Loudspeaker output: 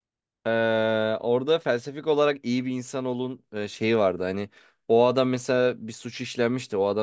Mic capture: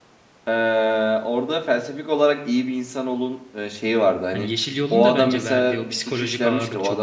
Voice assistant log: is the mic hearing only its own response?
No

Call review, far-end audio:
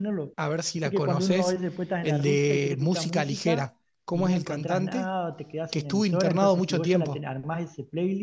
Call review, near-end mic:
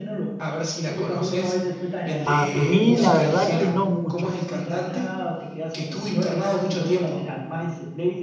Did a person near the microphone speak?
Yes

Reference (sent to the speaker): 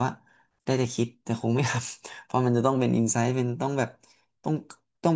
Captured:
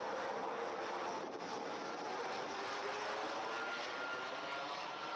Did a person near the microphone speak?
No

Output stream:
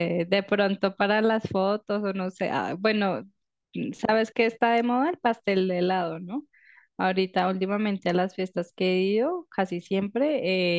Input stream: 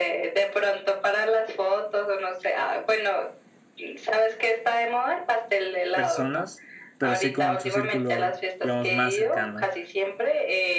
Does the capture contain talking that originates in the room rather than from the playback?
Yes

